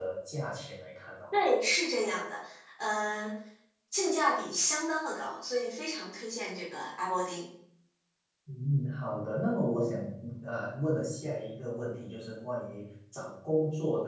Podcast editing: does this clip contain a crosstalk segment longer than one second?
No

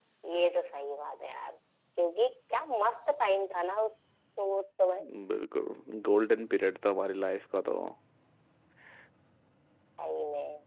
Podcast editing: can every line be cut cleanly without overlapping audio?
Yes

